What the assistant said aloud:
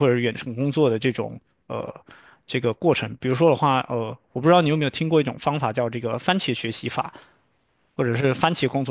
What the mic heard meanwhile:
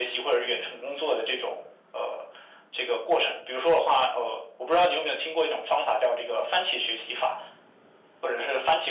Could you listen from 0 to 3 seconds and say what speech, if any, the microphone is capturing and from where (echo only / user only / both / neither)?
echo only